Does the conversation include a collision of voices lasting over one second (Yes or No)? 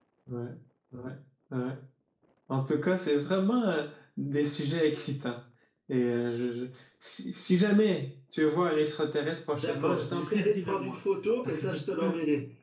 Yes